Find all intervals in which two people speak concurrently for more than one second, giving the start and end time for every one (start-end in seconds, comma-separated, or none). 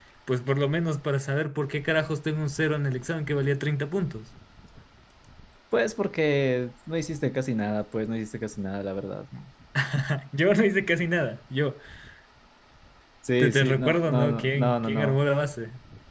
13.4-15.2